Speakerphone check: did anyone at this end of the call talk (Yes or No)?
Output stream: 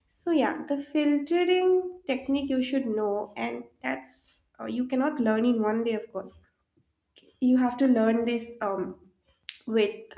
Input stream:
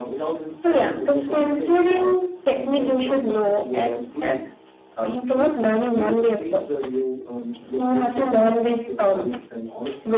Yes